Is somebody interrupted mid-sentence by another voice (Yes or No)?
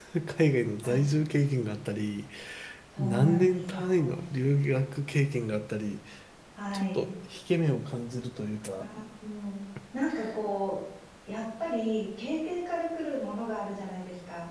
Yes